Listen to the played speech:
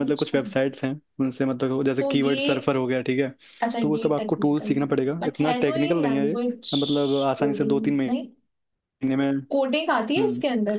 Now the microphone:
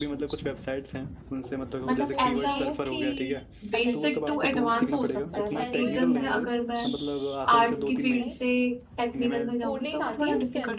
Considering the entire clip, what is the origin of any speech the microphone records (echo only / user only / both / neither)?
both